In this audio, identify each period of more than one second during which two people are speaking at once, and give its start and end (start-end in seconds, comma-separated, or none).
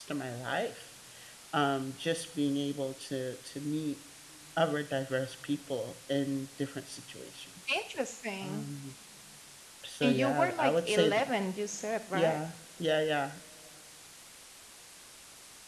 10.0-11.3